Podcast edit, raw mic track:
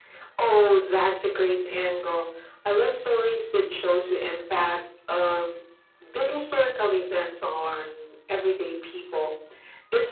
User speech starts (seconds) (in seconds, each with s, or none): none